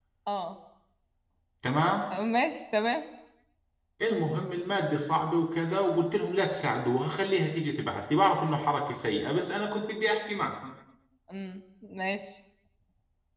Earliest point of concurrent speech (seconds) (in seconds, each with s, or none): none